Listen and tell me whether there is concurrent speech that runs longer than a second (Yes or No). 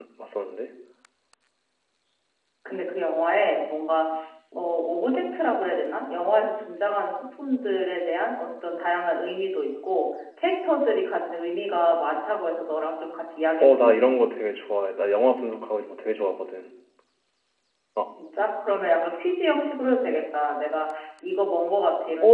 No